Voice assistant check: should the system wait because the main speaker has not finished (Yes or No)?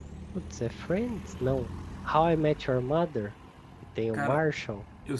No